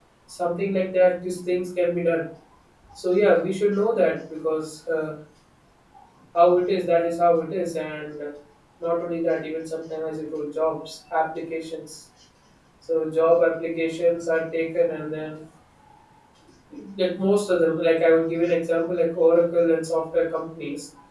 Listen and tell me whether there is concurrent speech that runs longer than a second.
No

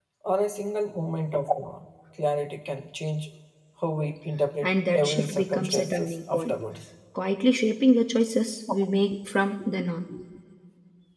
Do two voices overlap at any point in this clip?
Yes, from 4.6 s

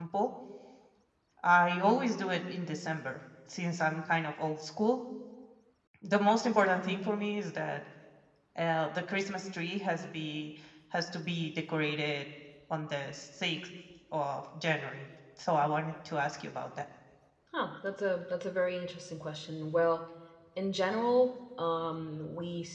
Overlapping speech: No

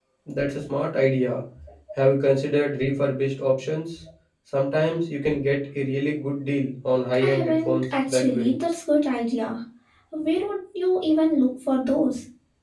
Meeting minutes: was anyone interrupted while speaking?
Yes, from 7.2 s

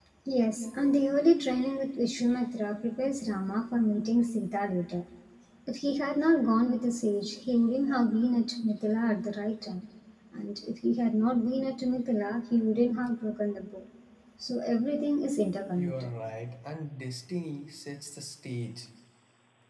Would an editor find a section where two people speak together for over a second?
No

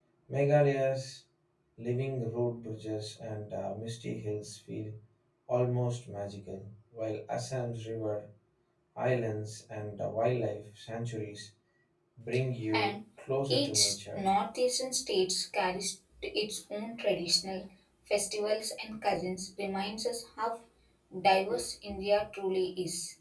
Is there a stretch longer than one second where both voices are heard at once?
No

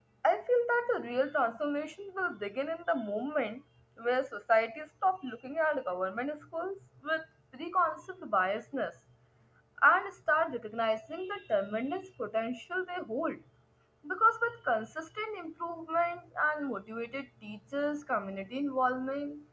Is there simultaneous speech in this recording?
No

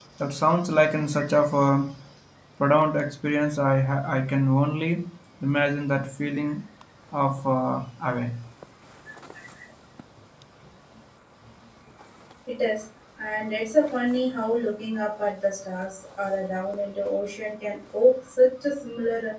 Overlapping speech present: No

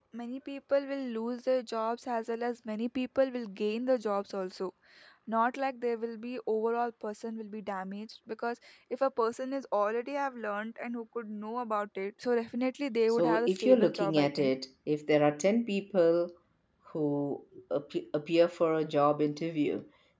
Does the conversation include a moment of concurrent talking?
Yes, from 13.1 s

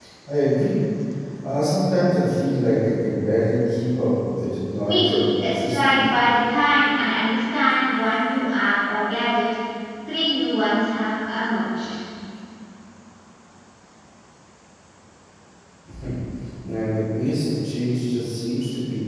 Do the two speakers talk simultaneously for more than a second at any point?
Yes, from 4.8 s

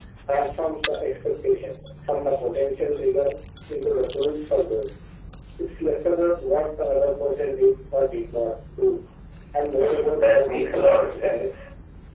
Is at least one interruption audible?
Yes, from 9.8 s

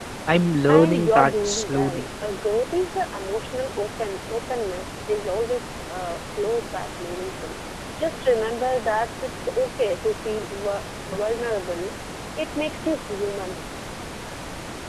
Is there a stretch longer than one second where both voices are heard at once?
Yes, from 0.7 s

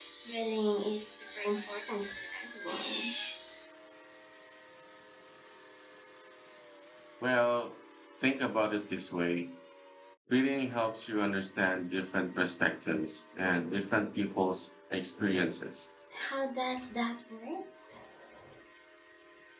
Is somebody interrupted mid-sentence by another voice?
No

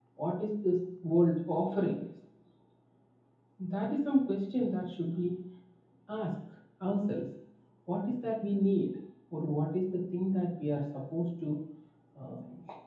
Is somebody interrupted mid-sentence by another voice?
No

